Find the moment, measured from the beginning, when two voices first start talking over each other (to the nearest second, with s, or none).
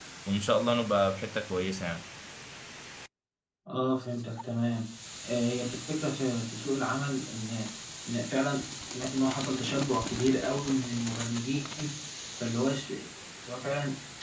none